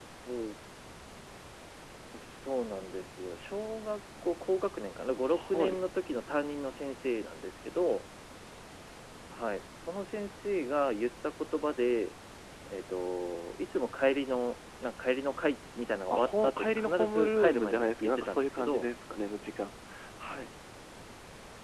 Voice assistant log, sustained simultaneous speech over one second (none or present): present